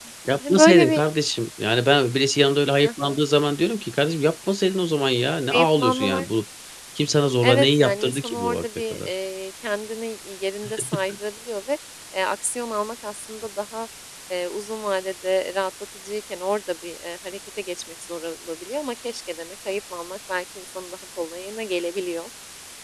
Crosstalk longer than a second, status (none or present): present